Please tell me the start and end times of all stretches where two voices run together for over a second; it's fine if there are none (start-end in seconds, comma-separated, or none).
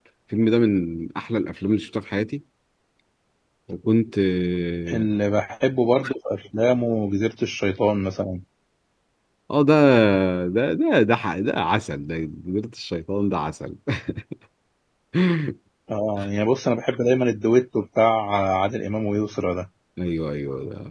none